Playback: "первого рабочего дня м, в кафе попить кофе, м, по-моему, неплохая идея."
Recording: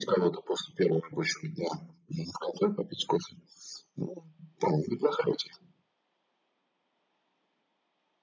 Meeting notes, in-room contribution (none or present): none